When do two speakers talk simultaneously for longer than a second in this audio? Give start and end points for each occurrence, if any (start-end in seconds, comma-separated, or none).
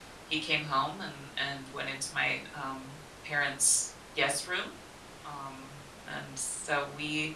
none